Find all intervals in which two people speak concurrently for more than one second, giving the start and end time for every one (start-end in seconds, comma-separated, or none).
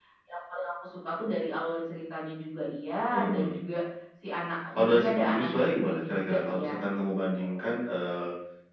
4.8-6.8